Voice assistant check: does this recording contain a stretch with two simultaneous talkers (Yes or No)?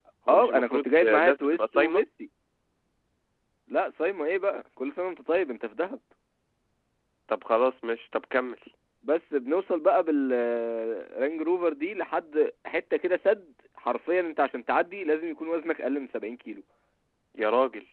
Yes